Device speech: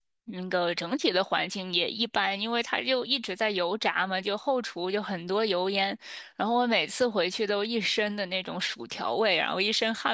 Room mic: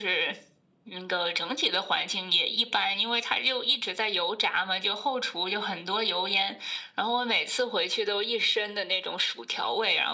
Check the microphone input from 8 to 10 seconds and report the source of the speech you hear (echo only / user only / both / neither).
echo only